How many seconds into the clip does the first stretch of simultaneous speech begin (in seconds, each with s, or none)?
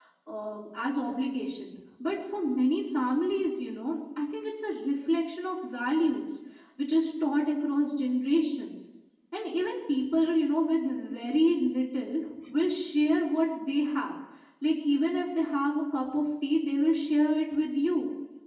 none